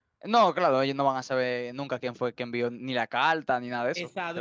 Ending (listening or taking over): taking over